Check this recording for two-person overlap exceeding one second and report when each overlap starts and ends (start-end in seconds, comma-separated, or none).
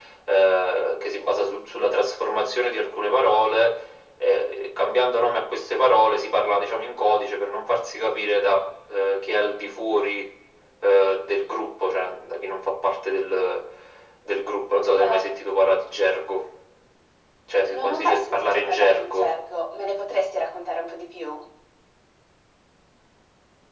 17.6-19.3